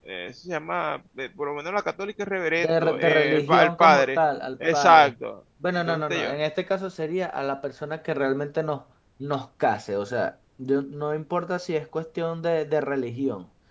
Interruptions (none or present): present